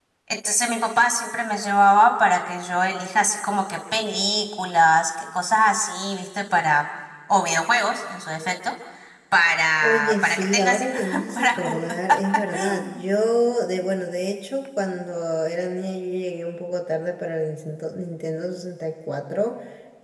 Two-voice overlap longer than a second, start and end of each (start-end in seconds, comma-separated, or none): 9.8-11.8